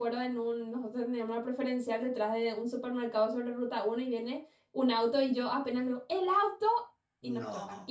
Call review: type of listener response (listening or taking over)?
listening